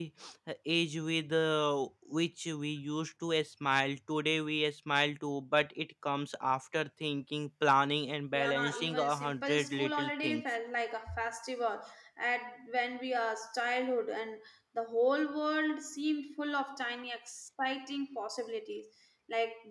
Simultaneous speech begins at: 8.3 s

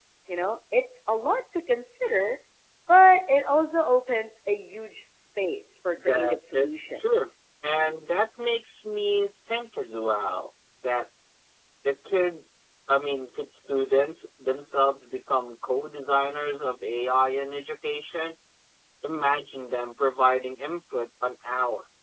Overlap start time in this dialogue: 6.0 s

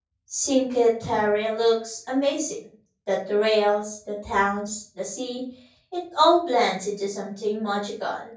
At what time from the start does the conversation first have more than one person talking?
none

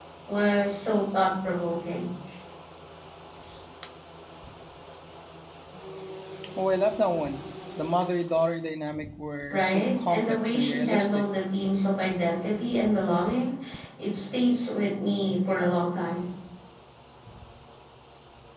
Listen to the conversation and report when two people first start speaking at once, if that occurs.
9.5 s

